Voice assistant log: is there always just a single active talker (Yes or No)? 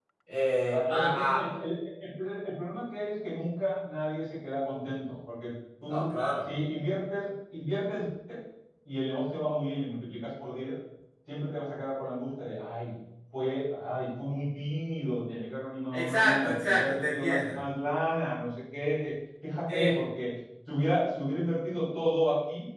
No